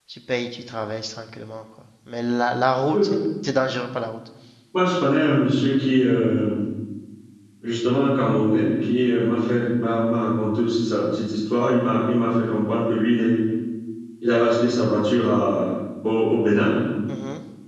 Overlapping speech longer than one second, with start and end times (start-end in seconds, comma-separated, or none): none